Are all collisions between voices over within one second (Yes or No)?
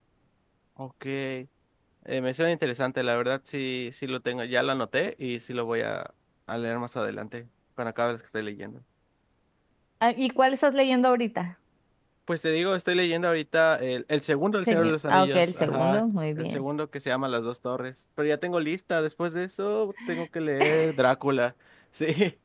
No